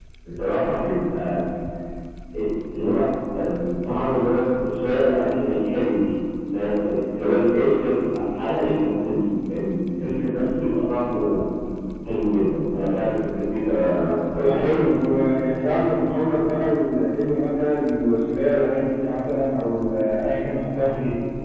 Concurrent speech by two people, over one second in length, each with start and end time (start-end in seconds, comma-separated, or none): none